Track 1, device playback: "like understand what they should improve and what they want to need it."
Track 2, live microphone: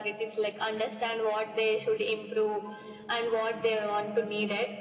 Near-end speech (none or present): none